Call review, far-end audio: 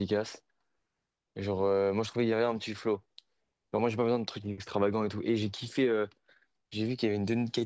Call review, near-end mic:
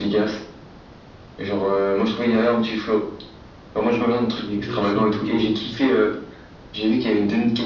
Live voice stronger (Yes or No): No